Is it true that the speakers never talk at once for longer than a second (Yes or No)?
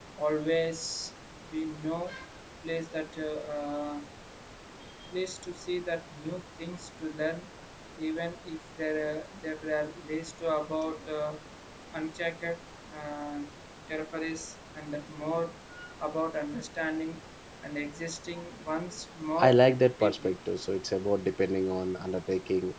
Yes